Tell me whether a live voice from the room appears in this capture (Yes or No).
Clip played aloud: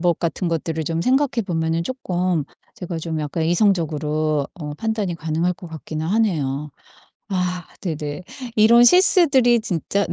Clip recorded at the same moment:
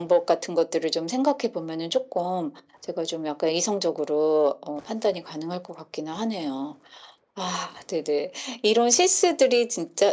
No